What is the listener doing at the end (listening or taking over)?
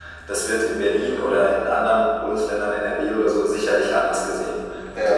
listening